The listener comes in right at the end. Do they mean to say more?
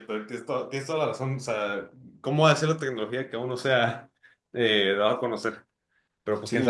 Yes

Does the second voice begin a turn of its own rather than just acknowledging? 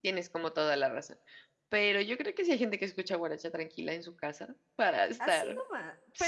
Yes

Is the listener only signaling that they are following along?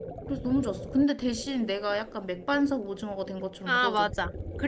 No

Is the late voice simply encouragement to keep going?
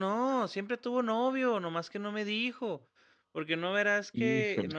Yes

